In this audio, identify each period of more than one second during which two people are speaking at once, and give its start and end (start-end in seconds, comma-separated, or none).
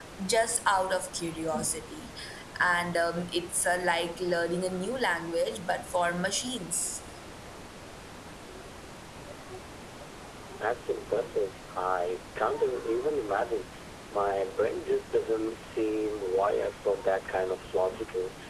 none